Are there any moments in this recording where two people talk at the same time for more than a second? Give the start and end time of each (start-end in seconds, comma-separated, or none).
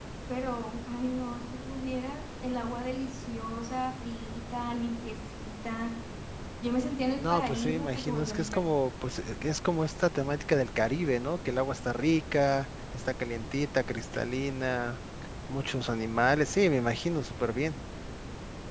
7.2-8.7